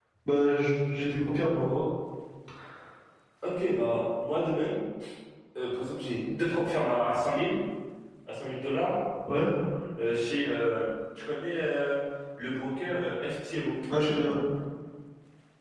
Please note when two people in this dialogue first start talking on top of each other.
none

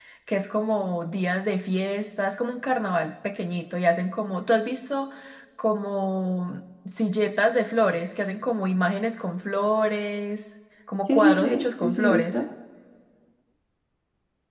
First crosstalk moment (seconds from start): 11.1 s

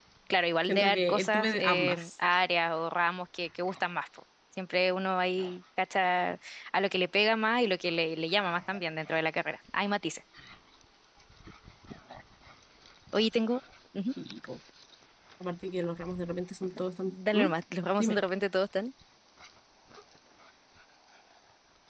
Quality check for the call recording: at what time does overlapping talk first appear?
0.7 s

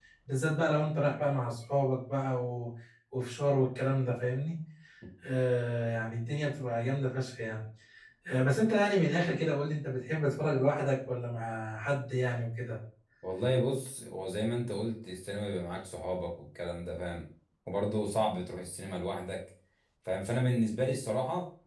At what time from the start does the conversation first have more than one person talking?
none

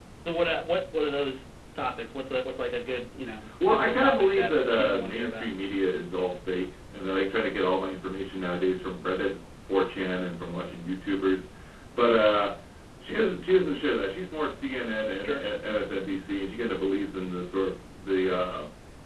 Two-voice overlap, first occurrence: 3.5 s

